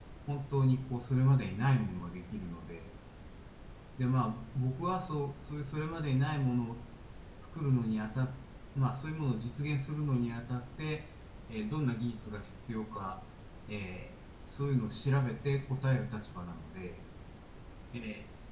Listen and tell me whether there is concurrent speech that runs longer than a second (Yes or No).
No